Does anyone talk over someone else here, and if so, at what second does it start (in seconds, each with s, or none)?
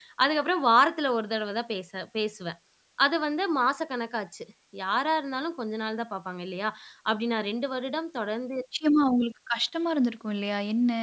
none